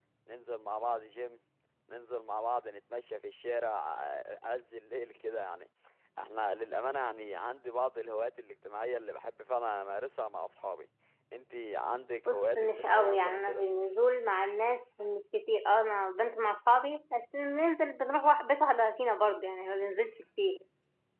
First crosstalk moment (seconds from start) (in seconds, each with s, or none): 12.3 s